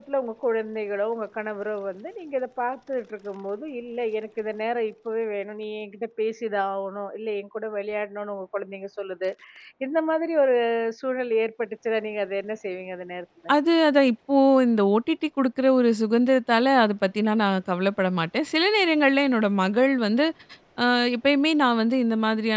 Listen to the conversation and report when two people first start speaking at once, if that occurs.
none

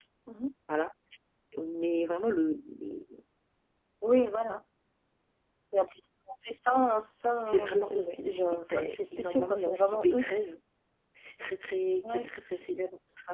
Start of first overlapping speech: 7 s

